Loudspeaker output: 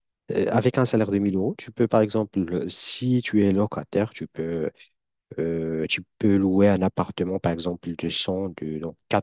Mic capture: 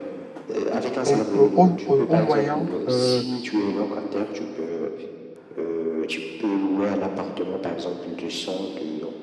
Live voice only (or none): au, euh, au- au- au moyen euh,